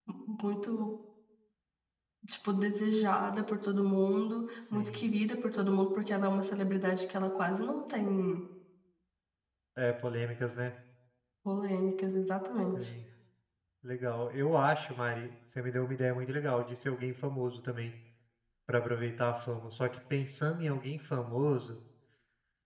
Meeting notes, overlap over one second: none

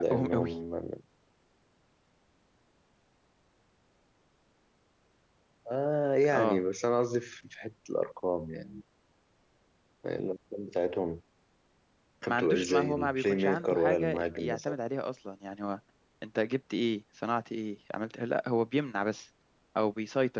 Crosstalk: present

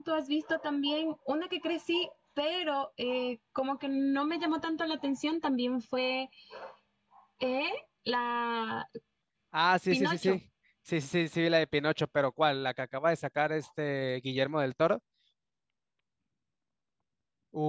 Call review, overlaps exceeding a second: none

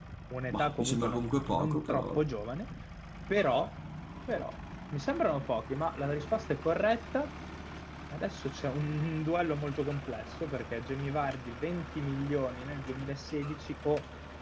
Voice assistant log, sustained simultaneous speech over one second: present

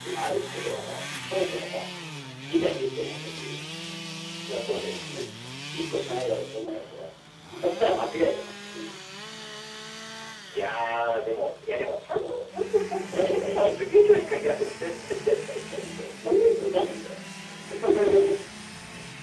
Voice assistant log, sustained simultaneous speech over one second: present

